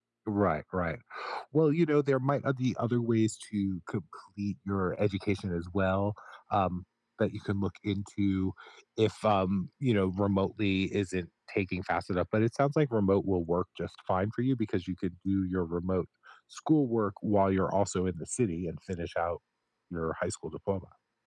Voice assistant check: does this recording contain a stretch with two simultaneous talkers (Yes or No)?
No